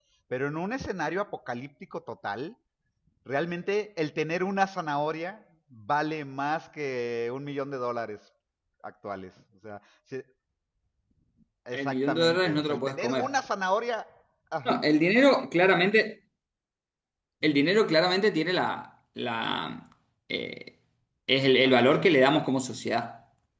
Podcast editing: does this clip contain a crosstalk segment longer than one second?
Yes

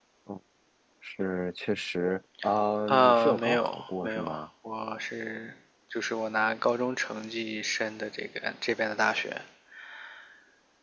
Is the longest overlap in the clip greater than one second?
Yes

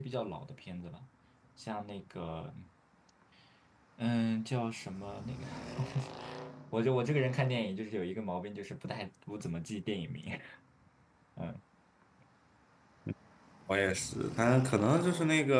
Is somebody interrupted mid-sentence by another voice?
No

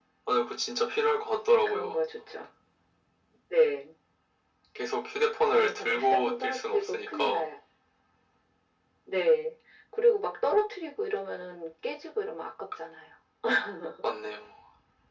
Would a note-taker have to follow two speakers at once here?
Yes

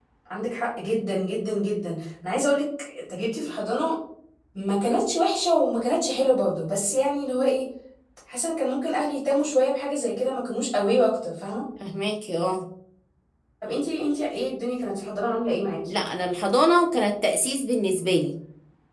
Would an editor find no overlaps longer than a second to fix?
Yes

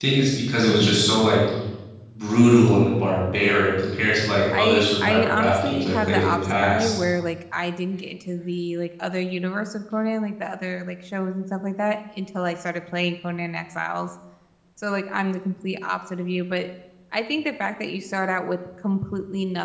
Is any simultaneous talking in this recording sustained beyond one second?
Yes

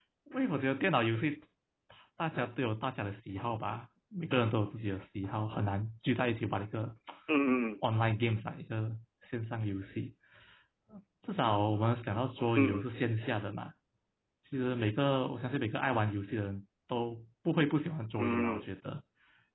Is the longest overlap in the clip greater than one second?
No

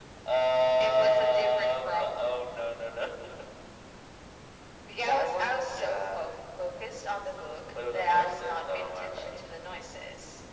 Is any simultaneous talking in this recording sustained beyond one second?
Yes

